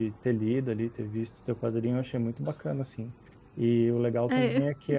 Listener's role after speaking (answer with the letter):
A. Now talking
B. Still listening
B